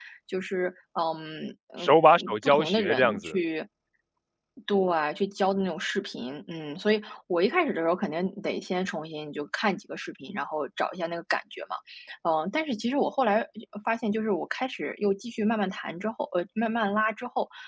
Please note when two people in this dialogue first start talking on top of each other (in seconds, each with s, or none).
1.8 s